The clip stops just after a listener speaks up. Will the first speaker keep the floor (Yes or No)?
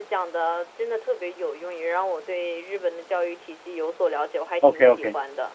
No